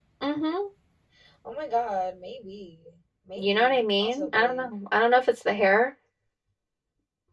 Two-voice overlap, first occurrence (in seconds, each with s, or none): 3.4 s